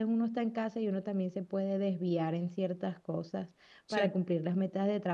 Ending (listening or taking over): listening